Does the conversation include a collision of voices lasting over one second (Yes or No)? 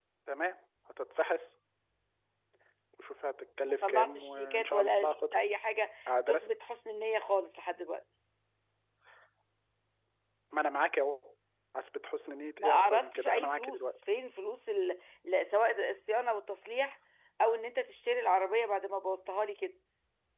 Yes